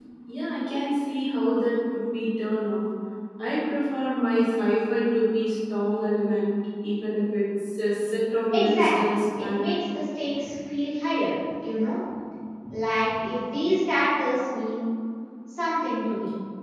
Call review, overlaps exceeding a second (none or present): present